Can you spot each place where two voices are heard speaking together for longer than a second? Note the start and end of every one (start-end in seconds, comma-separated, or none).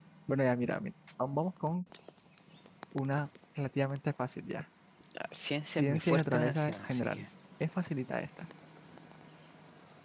5.8-7.2